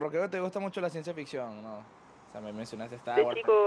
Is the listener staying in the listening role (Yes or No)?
No